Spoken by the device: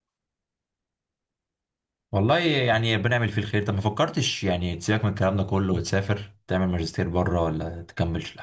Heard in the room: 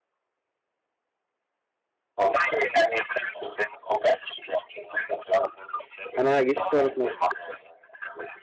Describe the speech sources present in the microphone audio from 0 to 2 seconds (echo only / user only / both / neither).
neither